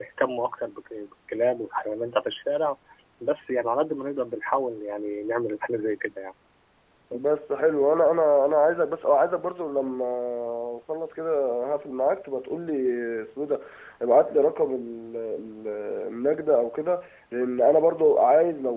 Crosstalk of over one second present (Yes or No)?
No